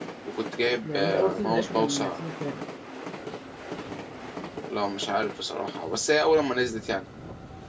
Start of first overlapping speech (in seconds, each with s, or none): 0.8 s